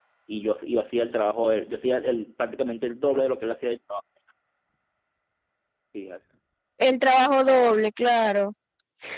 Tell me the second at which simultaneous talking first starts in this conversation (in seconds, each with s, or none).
none